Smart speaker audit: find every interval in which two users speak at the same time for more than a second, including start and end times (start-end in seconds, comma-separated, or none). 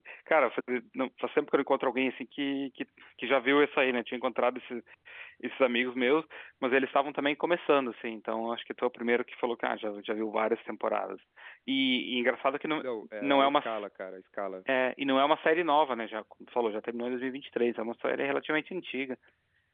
none